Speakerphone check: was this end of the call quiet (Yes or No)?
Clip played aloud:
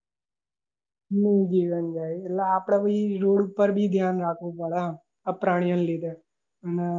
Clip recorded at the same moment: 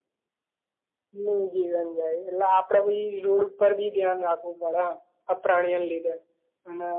Yes